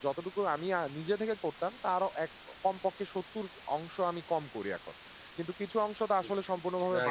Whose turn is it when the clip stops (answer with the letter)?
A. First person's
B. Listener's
B